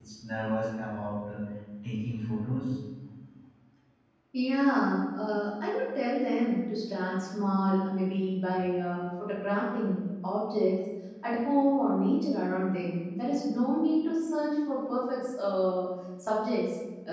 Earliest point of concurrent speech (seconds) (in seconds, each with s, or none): none